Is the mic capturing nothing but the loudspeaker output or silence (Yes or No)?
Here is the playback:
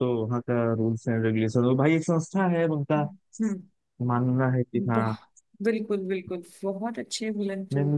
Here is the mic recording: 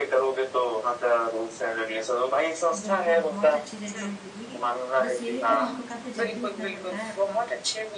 No